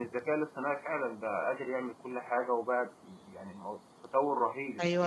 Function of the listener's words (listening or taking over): taking over